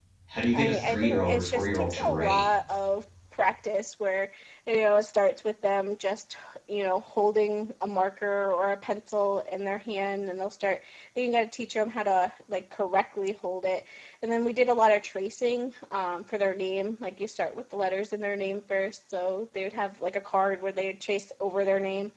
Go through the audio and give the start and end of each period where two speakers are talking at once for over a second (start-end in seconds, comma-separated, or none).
0.5-2.5